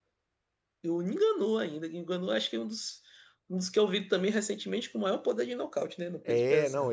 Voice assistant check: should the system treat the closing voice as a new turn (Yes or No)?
Yes